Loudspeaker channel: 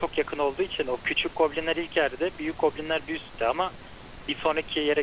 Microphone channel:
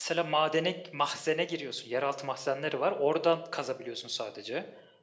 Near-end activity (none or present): present